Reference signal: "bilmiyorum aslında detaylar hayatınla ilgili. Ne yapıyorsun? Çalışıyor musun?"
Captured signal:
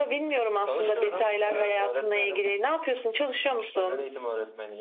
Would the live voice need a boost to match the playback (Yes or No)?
Yes